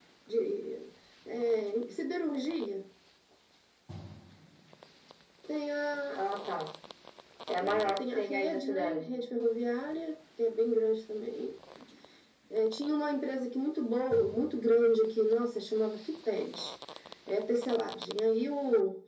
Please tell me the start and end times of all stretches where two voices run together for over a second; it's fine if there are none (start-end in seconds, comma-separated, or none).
7.6-9.1